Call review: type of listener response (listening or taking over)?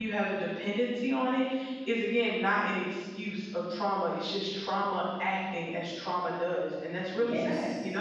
taking over